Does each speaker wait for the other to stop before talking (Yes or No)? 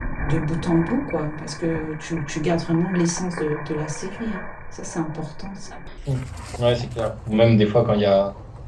Yes